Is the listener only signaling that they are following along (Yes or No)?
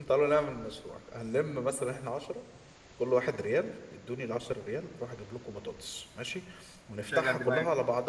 Yes